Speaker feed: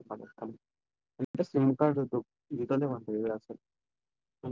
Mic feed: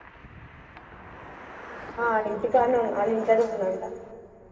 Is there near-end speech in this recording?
Yes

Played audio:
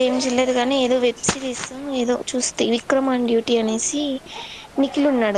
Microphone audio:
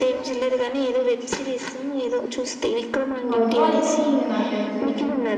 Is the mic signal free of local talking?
No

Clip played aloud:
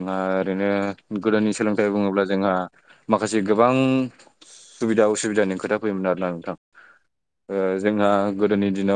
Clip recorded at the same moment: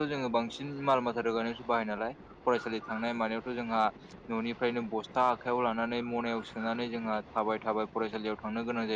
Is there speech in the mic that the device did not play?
Yes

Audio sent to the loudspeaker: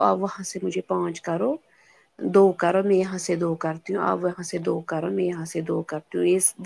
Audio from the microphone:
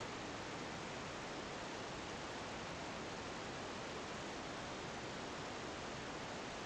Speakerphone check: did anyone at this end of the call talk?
No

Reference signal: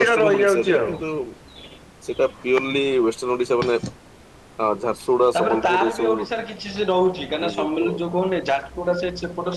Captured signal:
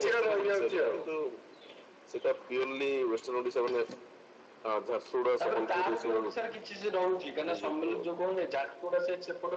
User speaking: No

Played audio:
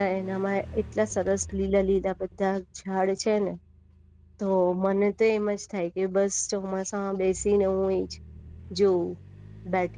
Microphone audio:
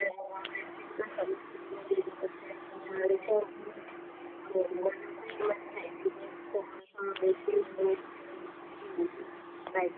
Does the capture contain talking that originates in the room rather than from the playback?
No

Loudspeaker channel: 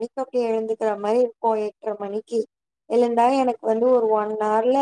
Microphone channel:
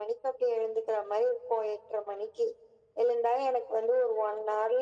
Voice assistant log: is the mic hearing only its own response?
Yes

